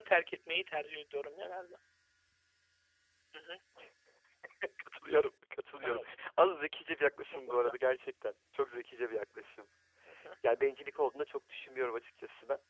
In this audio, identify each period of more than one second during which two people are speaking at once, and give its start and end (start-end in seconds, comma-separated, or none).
none